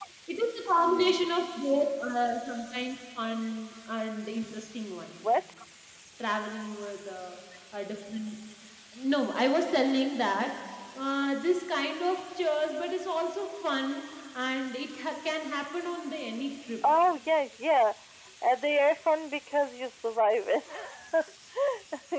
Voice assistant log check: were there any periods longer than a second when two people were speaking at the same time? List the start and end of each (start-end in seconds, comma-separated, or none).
none